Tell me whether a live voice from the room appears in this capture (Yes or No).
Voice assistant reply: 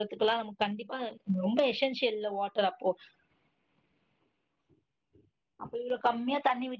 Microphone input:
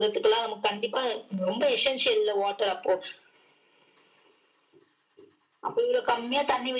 No